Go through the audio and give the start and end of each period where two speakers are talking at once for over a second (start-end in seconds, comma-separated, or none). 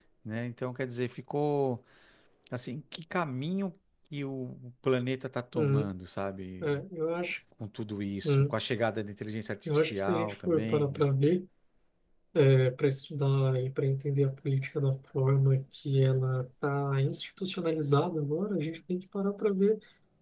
9.7-11.1